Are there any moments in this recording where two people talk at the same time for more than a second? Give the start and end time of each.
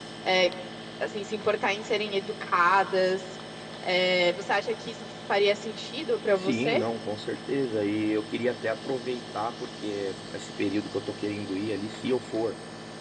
none

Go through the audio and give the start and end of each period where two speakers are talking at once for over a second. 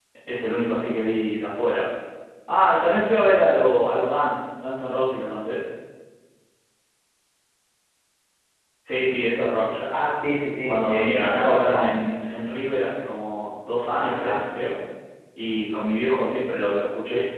10.7-11.9

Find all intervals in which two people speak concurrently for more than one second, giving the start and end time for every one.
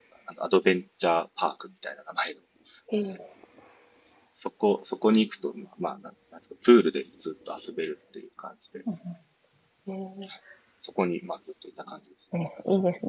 none

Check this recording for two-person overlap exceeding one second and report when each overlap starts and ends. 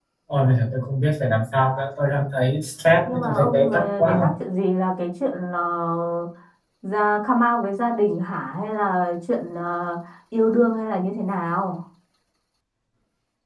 3.1-4.3

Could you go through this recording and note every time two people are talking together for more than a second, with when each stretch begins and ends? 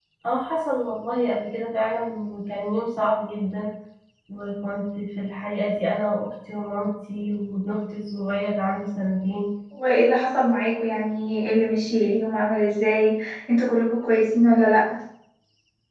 none

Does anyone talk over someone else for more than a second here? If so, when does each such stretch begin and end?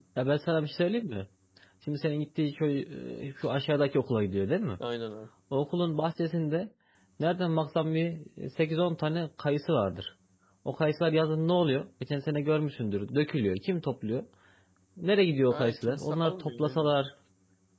15.5-16.9

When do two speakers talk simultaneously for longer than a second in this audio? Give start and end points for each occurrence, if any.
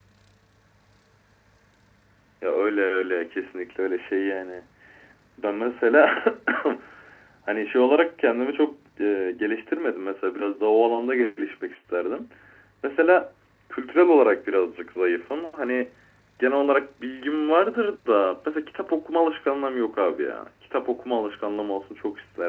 none

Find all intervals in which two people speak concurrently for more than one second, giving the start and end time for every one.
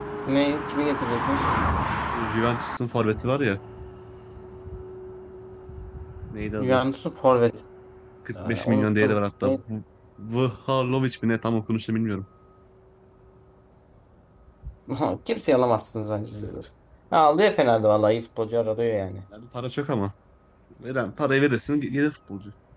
8.4-9.6

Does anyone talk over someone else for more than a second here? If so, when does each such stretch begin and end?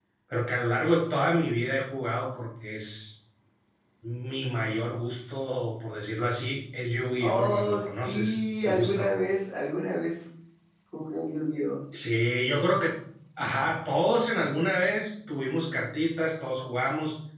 7.2-9.0

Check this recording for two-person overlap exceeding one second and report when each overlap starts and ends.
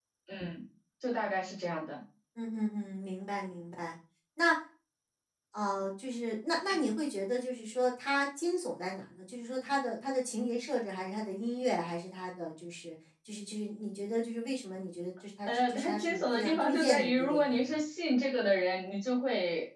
15.5-17.5

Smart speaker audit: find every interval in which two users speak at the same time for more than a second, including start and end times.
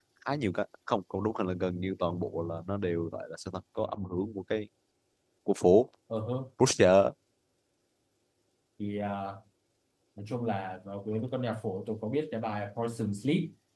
none

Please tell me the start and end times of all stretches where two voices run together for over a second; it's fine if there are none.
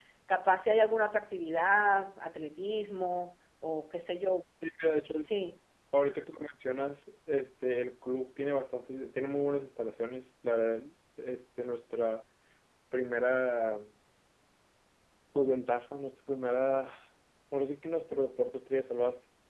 none

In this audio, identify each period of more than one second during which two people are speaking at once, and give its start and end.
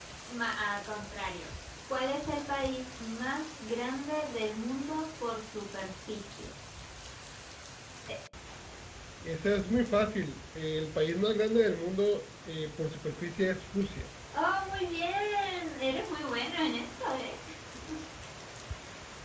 none

